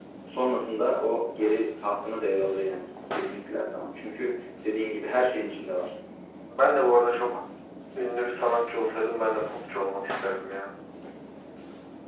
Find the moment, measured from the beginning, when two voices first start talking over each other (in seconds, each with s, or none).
none